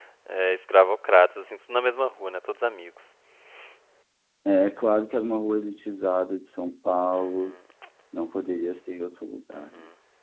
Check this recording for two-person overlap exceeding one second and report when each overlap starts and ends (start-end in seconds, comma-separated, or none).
none